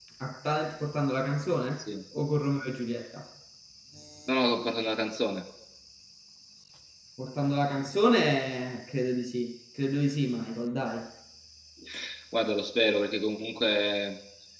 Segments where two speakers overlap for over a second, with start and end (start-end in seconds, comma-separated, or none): none